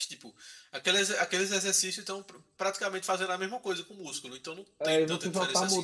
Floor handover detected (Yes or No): Yes